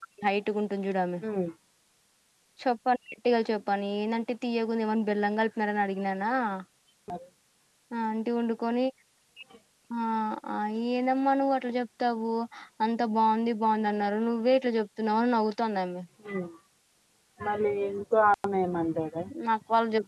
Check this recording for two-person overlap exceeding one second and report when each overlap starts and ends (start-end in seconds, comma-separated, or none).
none